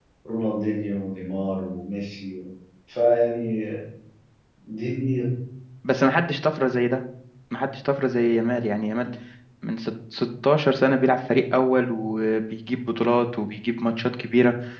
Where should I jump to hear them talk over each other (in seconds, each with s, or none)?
none